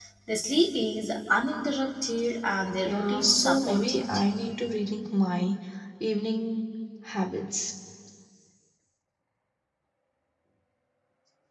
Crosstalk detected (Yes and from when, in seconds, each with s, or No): Yes, from 2.8 s